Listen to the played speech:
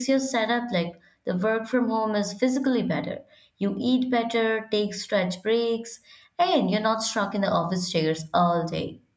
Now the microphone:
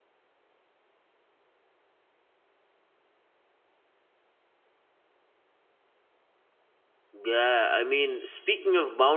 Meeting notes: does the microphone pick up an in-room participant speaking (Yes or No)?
Yes